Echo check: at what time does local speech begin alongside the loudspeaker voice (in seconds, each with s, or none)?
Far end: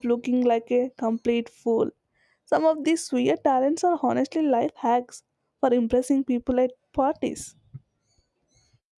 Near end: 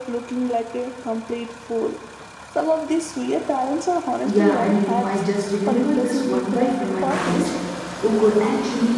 4.2 s